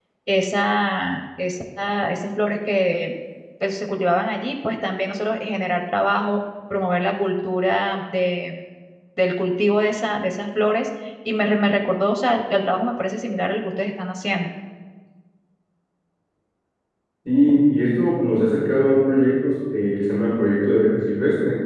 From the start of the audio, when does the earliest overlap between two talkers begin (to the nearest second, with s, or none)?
none